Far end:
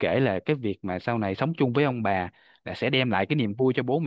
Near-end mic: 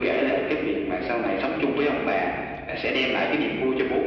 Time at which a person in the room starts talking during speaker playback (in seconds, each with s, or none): none